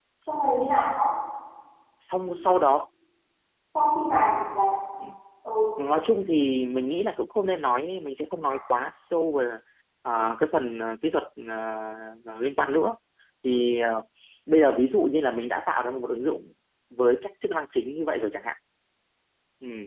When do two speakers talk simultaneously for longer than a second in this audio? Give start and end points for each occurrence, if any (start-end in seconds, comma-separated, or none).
none